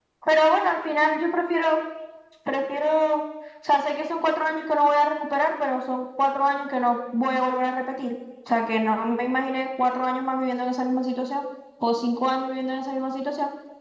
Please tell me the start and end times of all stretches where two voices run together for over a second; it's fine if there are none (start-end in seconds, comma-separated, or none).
none